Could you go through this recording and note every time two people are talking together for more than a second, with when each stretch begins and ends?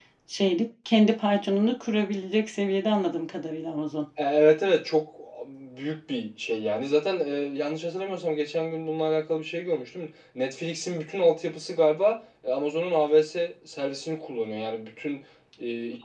none

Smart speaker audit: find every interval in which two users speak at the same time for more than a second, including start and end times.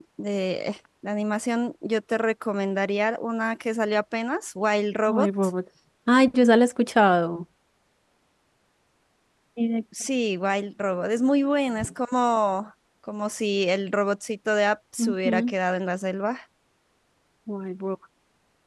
none

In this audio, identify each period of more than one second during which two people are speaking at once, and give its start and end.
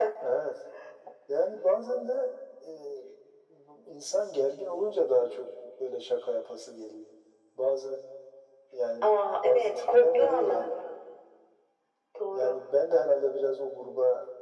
9.0-10.7

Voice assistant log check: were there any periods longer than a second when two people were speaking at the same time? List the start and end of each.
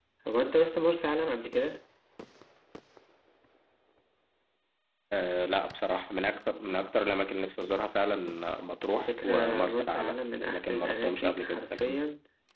9.1-12.0

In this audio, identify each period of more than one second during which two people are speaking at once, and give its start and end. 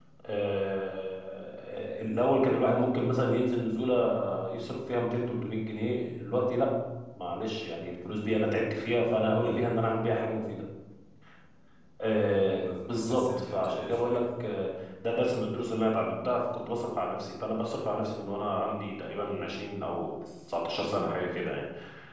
12.6-14.2

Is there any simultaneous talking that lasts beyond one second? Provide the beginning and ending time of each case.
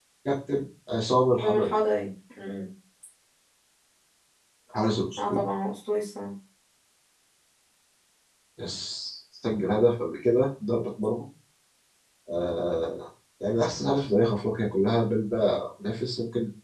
none

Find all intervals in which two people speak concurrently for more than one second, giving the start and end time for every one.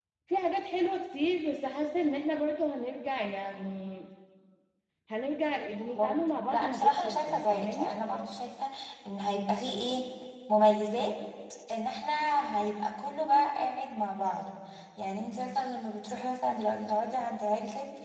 6.5-7.9

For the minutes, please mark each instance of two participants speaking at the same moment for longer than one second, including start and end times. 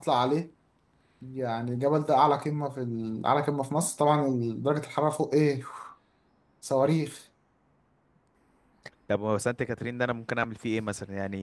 none

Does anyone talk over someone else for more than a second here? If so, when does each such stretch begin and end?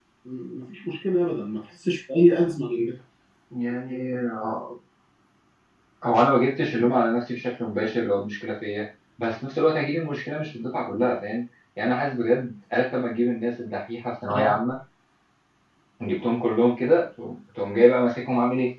none

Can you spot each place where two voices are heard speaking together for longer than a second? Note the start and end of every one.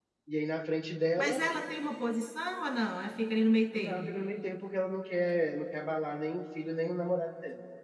none

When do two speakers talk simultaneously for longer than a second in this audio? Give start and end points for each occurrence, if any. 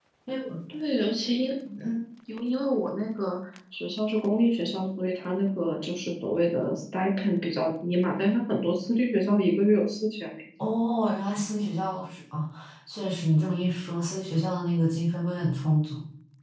none

